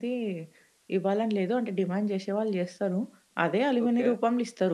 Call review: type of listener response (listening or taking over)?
listening